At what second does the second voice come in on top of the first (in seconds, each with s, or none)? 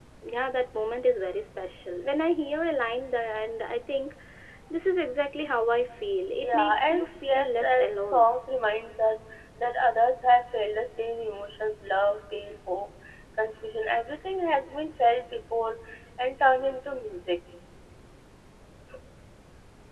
6.4 s